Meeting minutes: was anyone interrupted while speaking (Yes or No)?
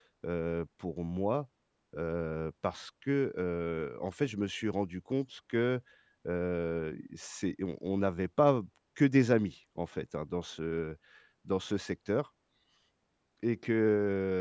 No